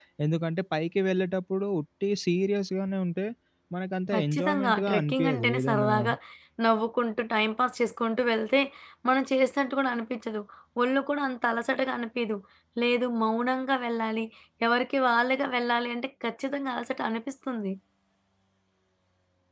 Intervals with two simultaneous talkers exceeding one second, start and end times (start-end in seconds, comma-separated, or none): 4.1-5.9